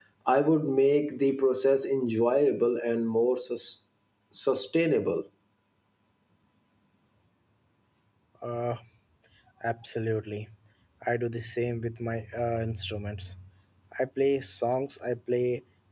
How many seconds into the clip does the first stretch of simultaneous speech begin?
none

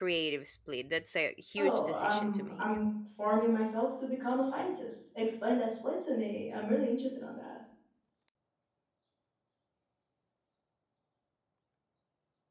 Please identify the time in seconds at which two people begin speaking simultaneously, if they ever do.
1.6 s

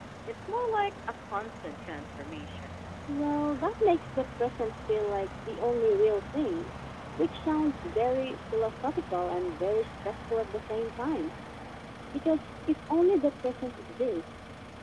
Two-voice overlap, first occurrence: none

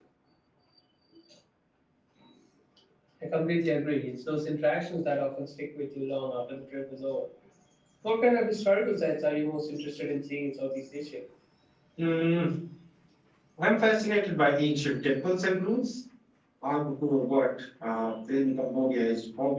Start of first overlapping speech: none

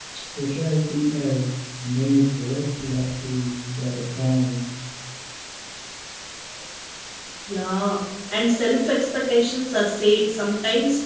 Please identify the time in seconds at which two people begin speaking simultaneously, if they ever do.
none

